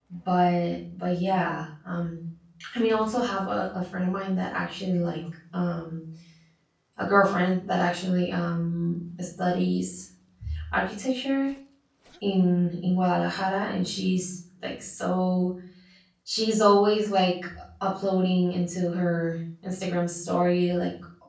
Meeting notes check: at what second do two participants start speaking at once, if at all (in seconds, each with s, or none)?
none